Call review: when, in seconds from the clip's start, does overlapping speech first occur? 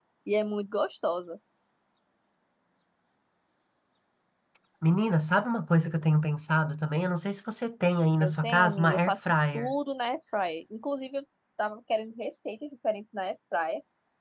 8.2 s

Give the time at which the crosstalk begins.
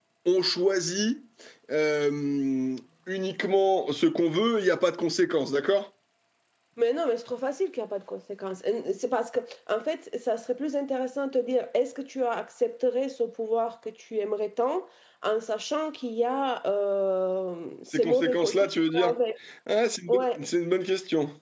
17.9 s

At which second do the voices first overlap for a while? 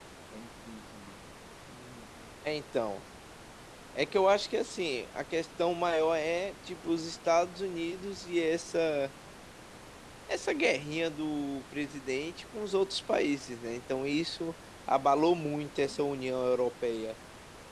none

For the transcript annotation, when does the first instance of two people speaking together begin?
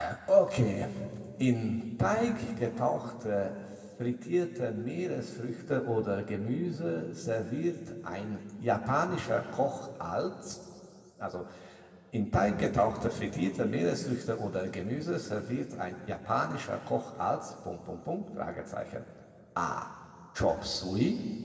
none

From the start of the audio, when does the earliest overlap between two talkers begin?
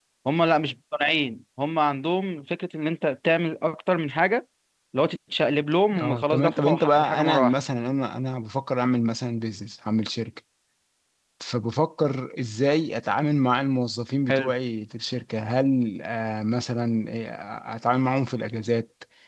5.9 s

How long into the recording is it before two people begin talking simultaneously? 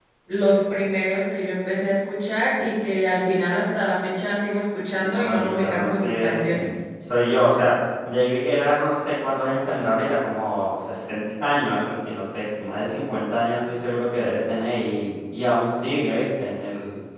5.2 s

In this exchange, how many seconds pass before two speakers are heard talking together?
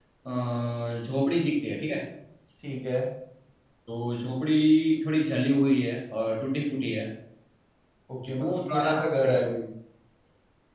8.3 s

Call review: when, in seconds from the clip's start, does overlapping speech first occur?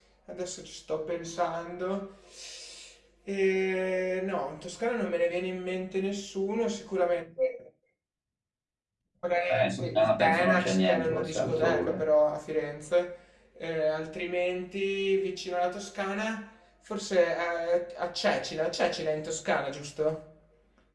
9.5 s

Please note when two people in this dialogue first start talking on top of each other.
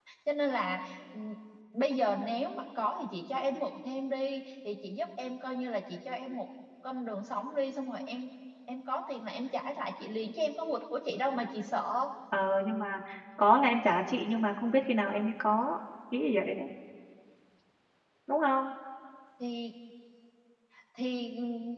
none

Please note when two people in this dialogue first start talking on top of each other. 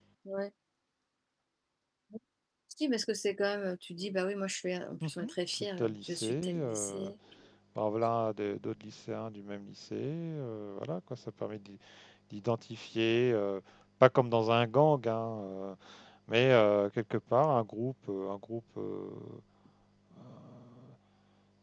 5.0 s

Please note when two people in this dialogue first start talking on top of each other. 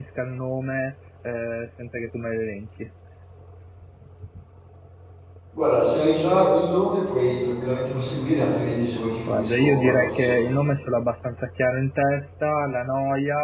9.3 s

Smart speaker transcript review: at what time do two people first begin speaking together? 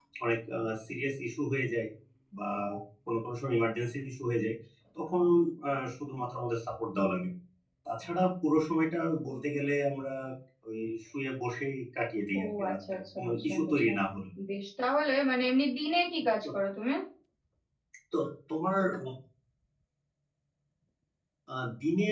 12.4 s

